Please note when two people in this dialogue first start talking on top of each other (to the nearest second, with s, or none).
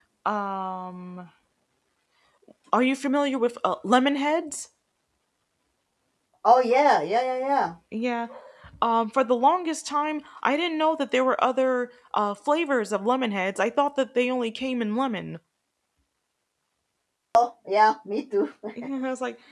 none